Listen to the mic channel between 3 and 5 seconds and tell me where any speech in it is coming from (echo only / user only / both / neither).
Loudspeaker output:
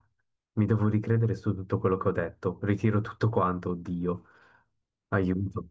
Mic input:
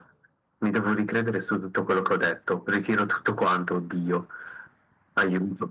echo only